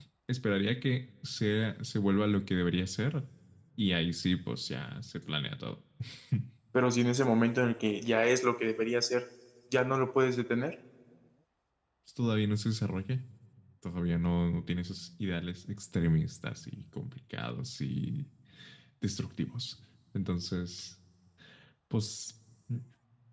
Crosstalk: none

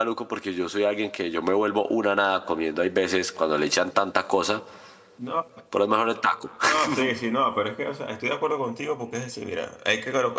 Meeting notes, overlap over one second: none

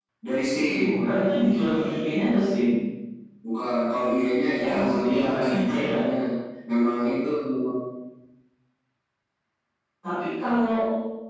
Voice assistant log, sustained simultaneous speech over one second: present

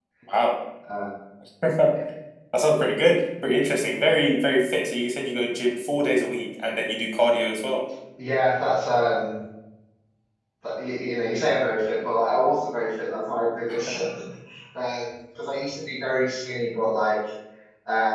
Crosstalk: none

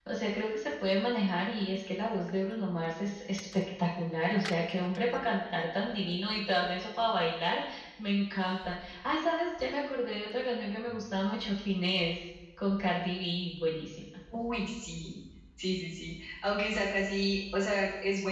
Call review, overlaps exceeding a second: none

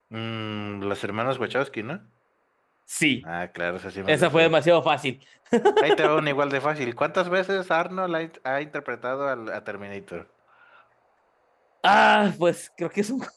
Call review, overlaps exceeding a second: none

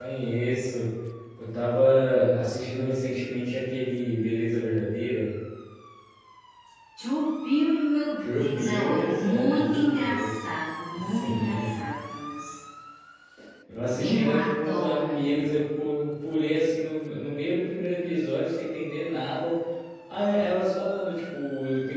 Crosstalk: present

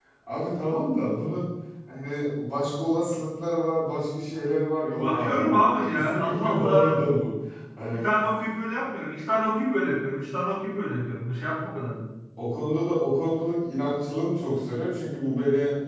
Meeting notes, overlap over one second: present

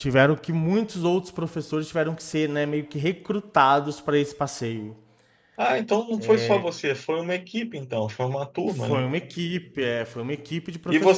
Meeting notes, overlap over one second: none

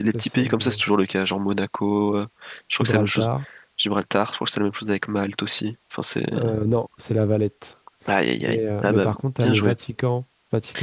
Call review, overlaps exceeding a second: present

